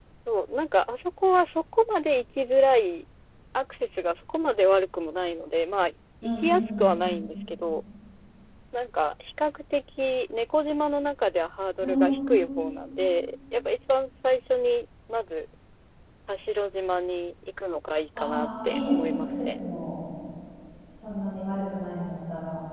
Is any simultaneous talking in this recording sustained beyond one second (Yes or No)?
Yes